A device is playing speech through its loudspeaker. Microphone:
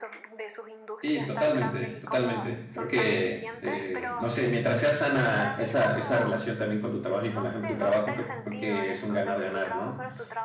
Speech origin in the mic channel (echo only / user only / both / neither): both